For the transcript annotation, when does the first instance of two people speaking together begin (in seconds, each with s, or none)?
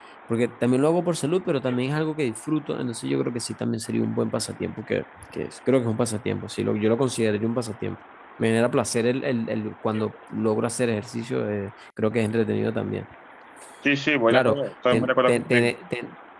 14.3 s